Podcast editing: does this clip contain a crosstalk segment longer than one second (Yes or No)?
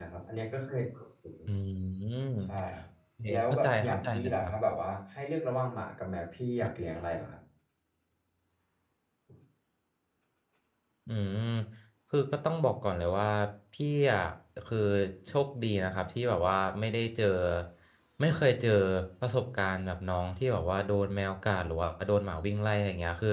Yes